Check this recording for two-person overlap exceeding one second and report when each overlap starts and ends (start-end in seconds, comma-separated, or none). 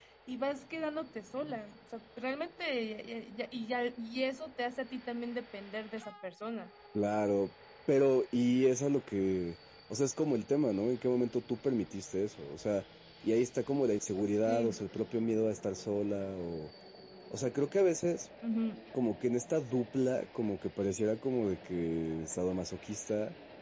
none